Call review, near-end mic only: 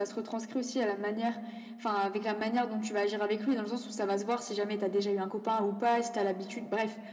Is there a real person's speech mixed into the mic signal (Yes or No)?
No